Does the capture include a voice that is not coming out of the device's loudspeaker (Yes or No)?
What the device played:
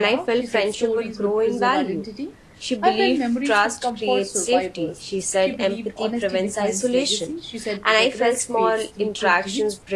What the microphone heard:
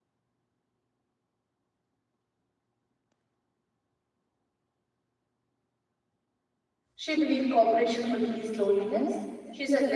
Yes